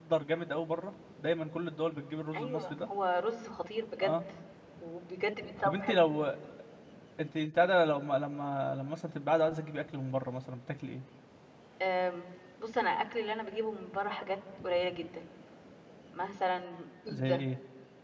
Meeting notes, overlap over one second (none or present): none